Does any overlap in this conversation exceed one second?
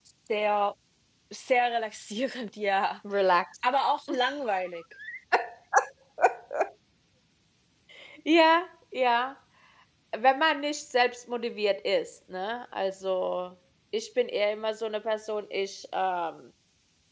No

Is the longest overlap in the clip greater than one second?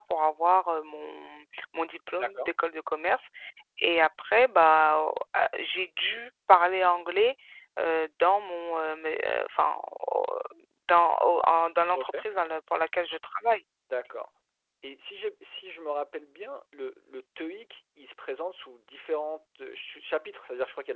No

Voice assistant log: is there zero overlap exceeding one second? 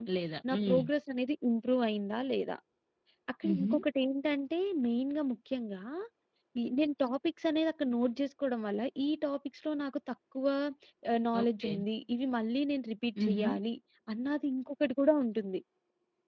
Yes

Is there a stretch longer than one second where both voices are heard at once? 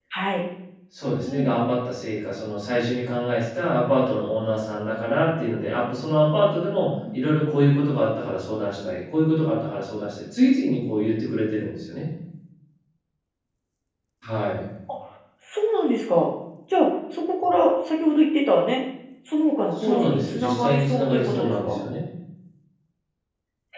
Yes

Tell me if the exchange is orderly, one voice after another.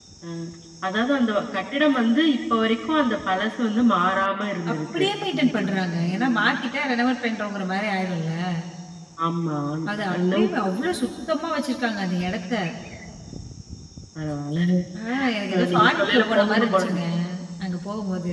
No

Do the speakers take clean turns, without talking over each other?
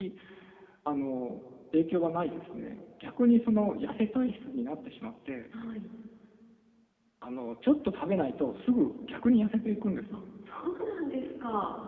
Yes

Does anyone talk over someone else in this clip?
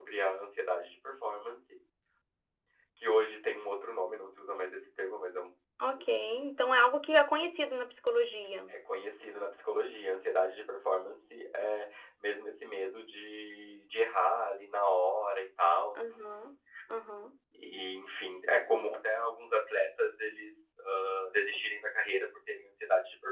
No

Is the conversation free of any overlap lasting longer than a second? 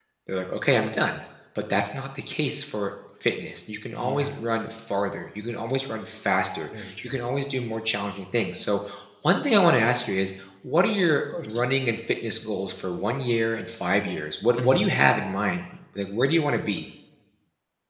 Yes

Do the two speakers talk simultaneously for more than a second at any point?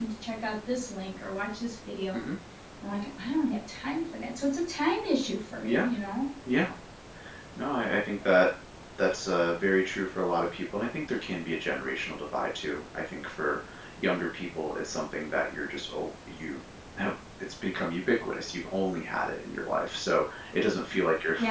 No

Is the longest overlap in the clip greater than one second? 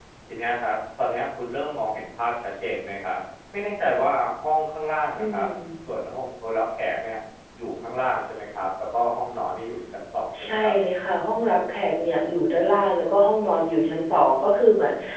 No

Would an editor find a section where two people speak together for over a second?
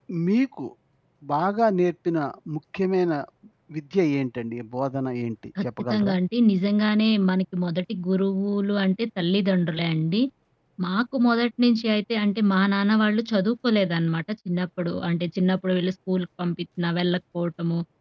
No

